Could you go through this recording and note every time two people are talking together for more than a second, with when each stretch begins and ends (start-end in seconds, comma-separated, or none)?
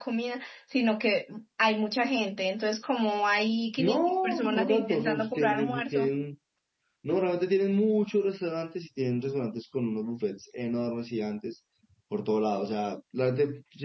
3.8-6.1